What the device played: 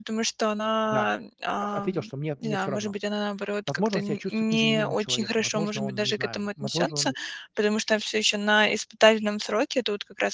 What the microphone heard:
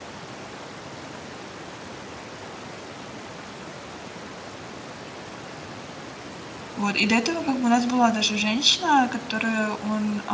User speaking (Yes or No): Yes